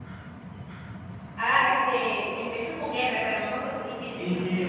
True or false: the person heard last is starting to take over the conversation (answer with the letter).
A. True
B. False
A